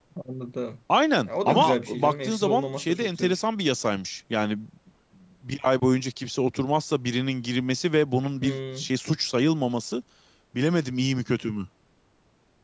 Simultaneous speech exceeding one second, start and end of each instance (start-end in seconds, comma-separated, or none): 1.3-3.4